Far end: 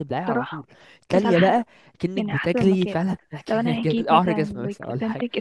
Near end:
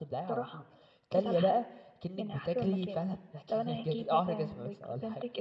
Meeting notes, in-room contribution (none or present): none